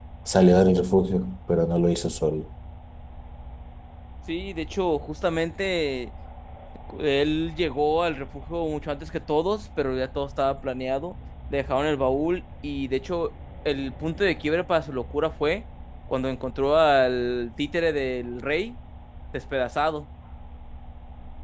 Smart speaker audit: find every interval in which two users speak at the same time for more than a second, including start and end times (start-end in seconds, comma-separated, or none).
none